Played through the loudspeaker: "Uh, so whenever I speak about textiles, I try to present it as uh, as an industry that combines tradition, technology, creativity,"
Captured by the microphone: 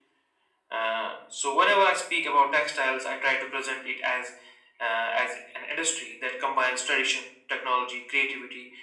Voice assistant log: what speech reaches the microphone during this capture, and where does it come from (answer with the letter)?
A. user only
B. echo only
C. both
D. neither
B